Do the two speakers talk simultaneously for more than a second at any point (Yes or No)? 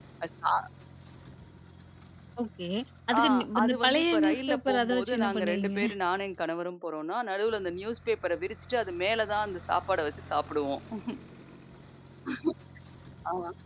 Yes